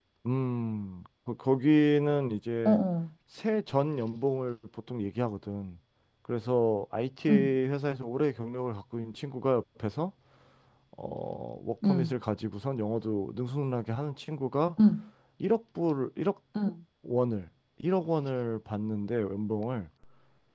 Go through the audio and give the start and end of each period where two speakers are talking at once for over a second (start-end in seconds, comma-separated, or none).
none